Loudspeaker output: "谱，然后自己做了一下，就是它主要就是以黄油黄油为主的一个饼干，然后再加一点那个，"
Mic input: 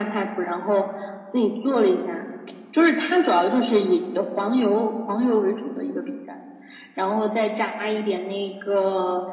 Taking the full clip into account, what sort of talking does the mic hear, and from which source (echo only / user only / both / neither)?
echo only